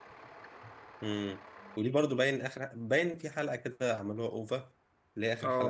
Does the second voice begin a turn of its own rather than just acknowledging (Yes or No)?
Yes